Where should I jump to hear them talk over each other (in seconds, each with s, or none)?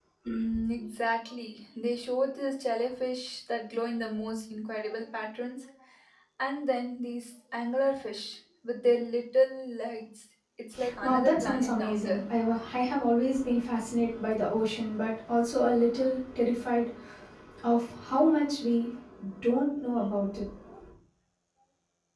10.8 s